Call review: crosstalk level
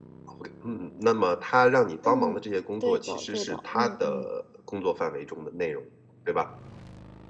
present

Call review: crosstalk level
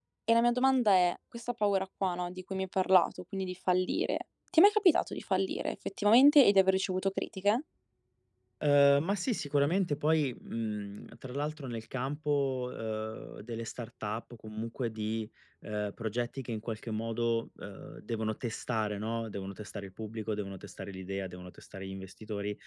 none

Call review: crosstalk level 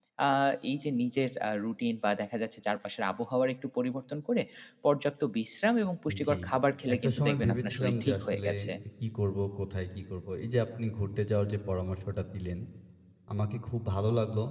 present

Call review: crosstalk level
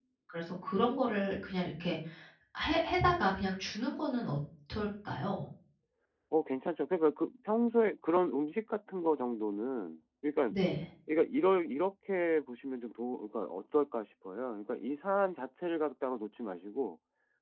none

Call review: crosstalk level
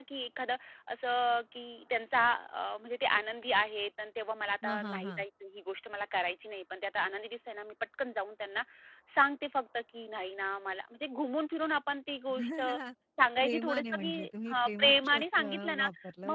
present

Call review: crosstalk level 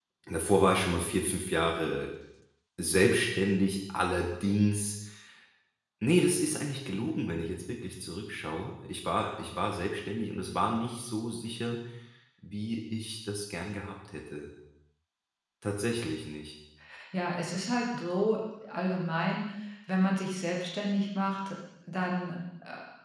none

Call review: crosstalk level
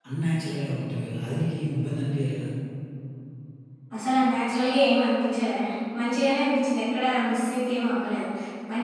none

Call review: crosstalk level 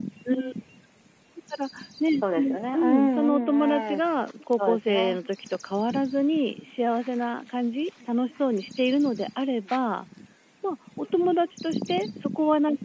present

